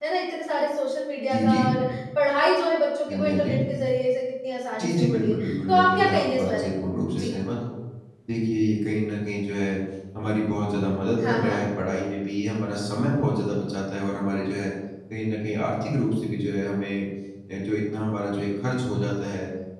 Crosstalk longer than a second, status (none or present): present